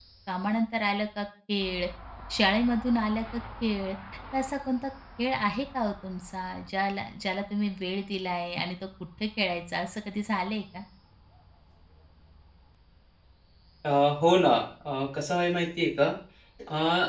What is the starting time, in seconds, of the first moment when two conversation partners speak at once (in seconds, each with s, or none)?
none